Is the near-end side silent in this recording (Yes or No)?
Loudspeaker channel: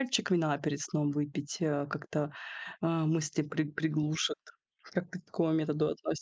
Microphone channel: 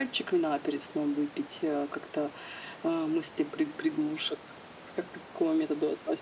Yes